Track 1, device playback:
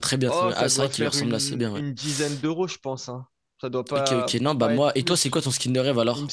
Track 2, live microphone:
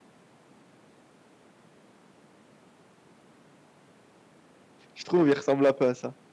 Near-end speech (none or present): present